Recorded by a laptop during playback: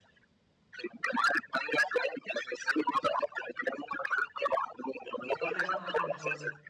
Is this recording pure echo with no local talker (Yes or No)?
No